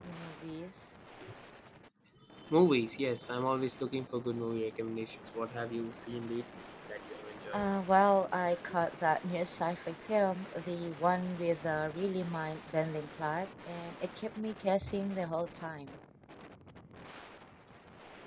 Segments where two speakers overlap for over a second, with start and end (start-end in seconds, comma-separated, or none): none